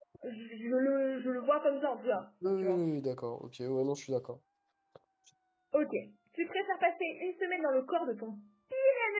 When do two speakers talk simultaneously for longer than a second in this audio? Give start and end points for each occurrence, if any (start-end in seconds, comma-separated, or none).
none